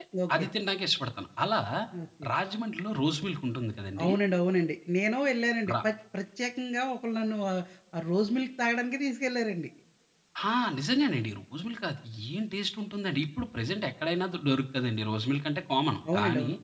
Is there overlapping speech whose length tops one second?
No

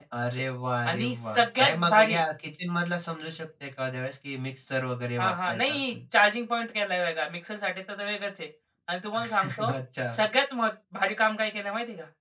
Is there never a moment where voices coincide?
No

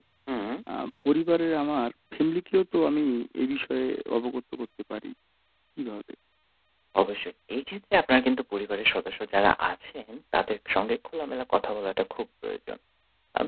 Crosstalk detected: No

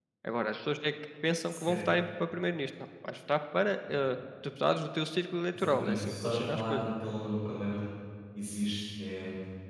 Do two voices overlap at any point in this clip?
Yes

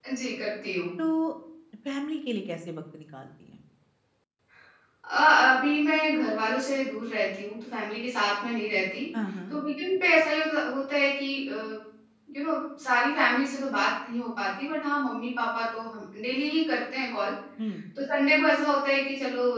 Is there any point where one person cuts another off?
No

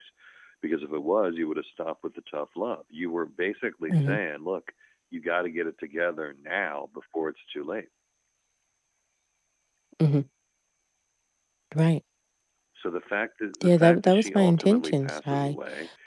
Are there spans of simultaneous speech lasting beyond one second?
Yes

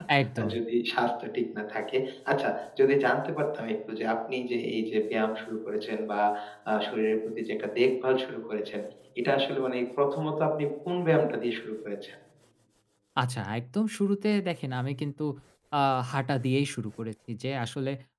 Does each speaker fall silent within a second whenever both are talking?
Yes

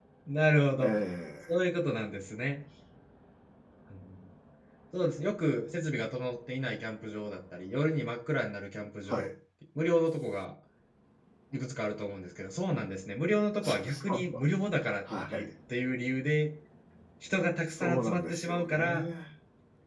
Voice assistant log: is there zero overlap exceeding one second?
No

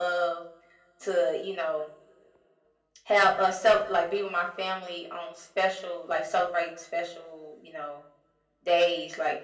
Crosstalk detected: No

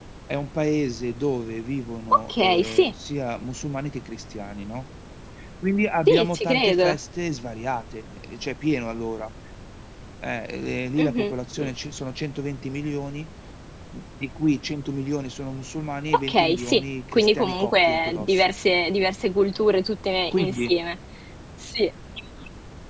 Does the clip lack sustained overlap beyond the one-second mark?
No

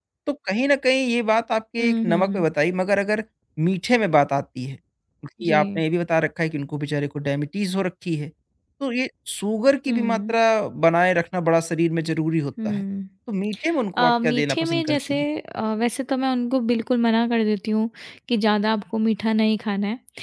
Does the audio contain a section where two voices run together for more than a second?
Yes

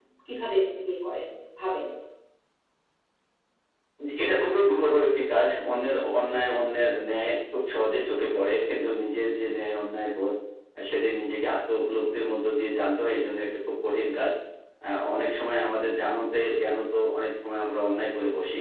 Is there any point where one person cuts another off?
No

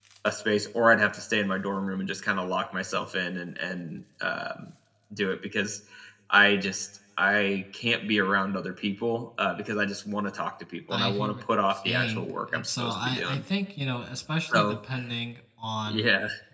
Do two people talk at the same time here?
Yes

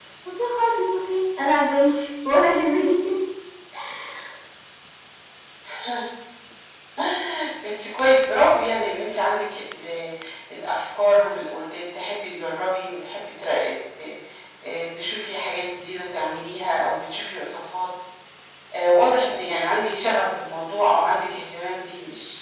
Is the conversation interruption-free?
Yes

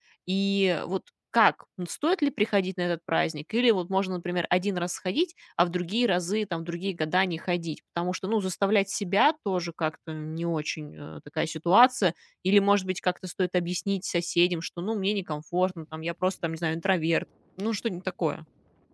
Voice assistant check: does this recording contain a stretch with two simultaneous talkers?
No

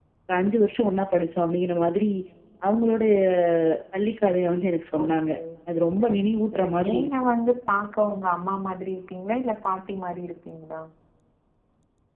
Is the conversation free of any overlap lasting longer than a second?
No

